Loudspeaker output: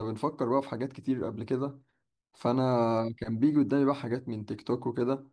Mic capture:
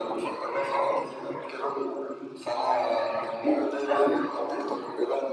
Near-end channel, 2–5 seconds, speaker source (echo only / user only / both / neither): echo only